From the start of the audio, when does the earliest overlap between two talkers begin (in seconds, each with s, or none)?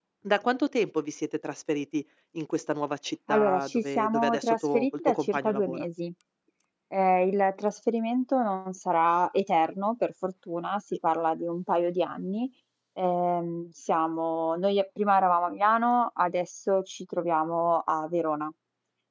3.3 s